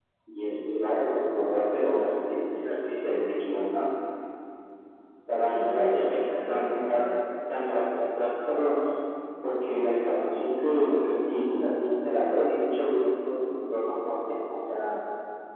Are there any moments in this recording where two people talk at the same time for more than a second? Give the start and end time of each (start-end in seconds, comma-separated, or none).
5.4-7.0